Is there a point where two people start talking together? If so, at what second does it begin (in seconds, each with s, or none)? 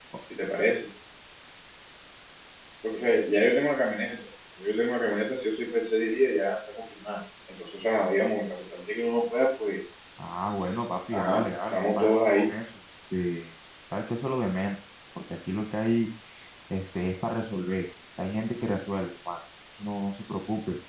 11.1 s